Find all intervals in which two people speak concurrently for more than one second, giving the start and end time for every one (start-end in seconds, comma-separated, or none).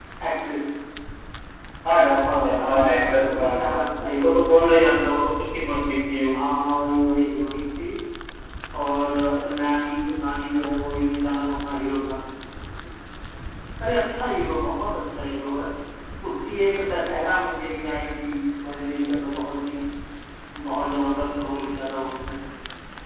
2.2-4.5